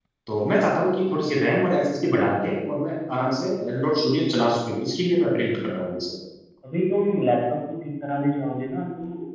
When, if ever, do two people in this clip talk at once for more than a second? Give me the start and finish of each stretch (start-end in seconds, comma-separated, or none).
none